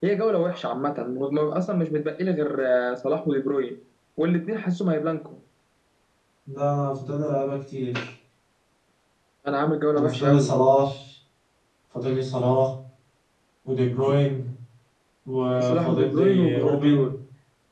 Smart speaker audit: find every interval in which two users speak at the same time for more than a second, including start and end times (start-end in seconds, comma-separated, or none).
15.7-17.1